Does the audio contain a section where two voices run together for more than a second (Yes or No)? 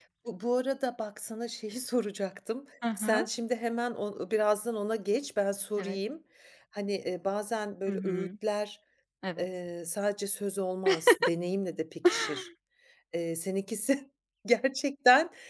No